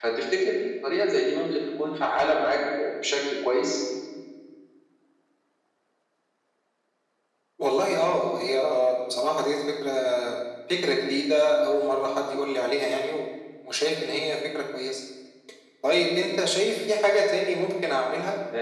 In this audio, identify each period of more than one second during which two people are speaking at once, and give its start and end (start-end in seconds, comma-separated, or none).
none